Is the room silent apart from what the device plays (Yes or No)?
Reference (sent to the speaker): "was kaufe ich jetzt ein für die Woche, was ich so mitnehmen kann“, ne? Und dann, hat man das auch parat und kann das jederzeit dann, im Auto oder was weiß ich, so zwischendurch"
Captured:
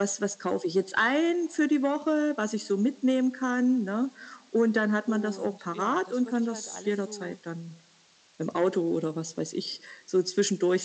No